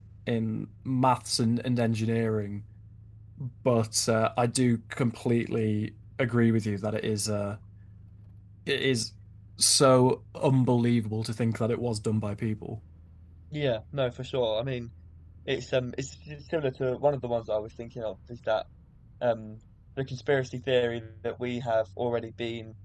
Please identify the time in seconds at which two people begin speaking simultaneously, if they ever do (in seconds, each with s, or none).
none